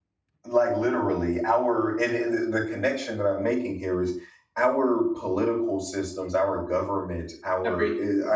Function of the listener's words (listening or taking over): listening